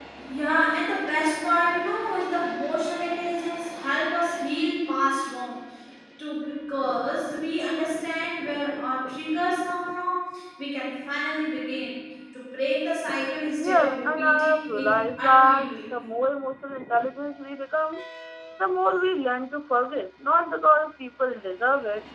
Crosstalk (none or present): present